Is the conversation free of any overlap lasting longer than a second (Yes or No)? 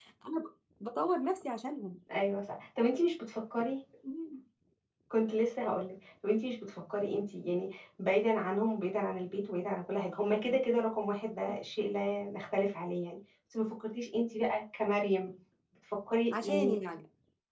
Yes